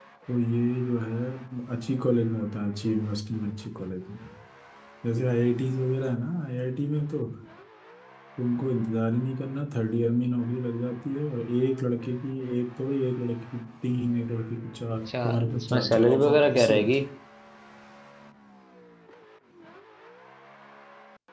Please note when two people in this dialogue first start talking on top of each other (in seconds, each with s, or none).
15.1 s